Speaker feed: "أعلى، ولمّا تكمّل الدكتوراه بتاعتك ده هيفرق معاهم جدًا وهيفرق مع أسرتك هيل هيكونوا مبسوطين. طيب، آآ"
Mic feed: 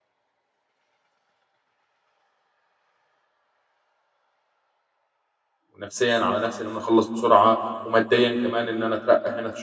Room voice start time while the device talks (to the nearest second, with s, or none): 6 s